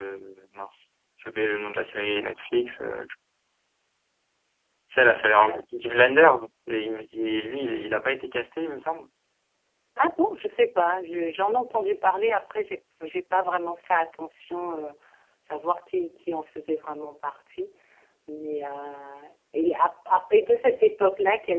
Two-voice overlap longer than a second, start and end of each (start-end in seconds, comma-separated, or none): none